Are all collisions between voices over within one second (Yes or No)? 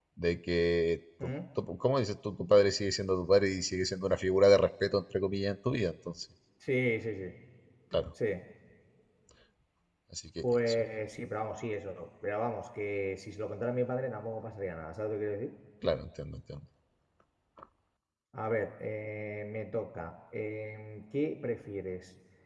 Yes